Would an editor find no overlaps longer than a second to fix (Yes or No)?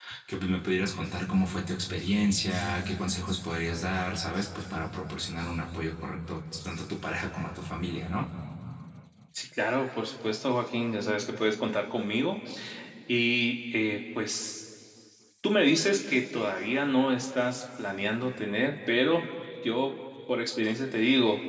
Yes